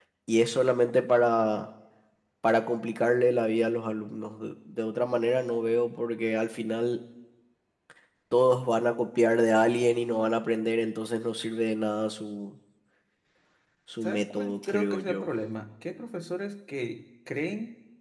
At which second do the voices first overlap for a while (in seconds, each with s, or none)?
14.0 s